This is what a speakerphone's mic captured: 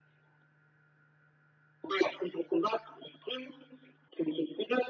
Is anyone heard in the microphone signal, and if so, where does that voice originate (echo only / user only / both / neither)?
echo only